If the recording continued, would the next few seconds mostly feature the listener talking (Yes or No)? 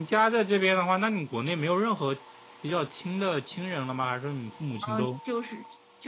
Yes